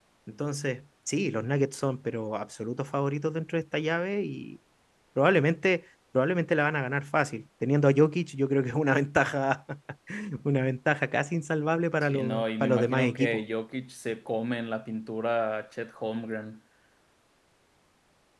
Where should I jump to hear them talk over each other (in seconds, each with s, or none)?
12.0 s